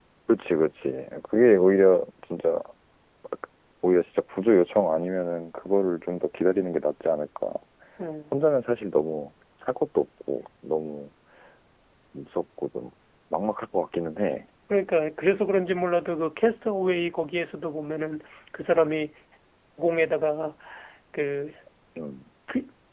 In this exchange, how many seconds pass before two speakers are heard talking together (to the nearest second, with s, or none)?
none